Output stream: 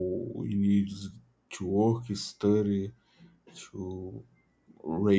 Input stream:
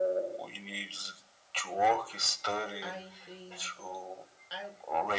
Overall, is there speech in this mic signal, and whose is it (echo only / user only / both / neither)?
both